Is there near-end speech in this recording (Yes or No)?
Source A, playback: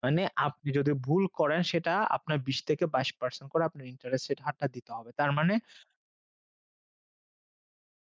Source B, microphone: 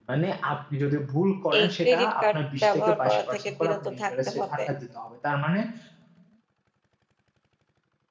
Yes